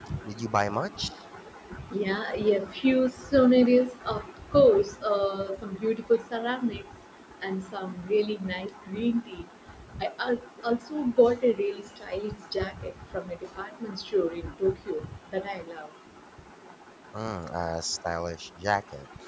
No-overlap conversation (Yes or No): Yes